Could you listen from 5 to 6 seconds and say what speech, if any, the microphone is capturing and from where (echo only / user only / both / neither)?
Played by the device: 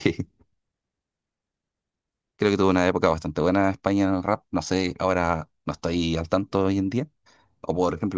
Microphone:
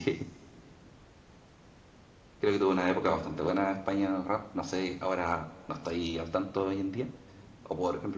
echo only